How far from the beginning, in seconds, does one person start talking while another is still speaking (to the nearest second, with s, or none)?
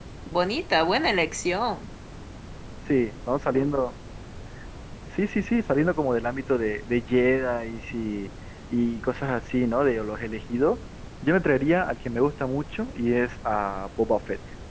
none